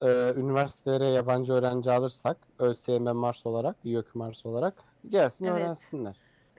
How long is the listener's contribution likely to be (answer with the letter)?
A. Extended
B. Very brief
A